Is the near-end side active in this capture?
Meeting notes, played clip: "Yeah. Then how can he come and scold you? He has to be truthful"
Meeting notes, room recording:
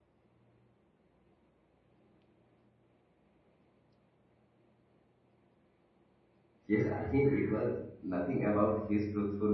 Yes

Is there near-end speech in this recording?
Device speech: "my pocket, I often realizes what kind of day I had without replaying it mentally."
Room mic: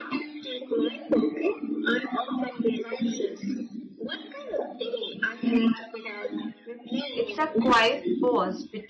Yes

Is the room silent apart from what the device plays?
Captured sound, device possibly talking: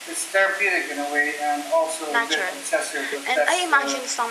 No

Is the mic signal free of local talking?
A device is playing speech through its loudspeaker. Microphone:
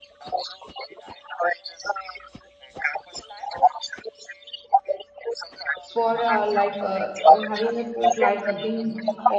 No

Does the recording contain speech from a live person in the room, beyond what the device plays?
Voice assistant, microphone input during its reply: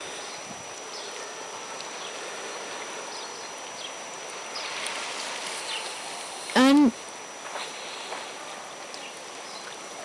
Yes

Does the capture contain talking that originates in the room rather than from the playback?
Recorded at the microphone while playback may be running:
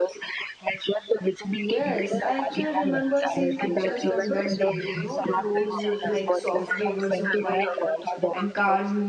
Yes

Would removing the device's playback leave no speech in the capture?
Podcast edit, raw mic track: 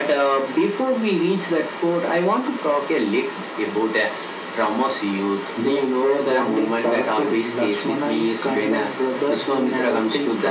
Yes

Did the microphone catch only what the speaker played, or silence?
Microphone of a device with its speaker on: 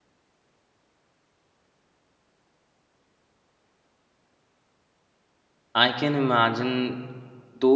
No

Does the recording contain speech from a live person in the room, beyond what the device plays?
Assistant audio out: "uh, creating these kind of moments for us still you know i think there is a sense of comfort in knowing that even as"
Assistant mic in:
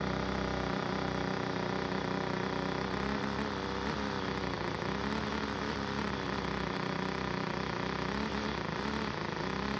No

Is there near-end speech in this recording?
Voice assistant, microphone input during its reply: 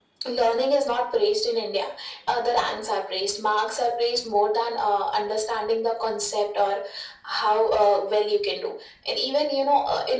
No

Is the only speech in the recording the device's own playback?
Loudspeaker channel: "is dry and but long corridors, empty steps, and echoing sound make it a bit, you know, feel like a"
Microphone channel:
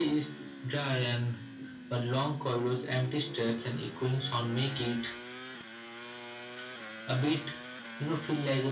Yes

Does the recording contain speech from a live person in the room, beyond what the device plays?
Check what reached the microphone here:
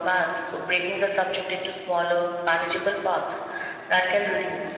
No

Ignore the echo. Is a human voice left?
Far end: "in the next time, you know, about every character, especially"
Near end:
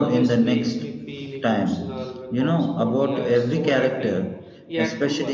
Yes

